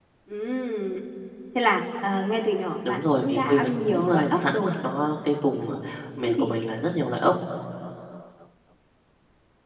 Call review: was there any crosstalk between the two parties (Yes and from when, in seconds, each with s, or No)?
Yes, from 2.9 s